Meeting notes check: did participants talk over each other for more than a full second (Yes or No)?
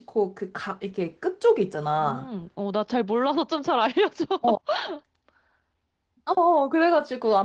No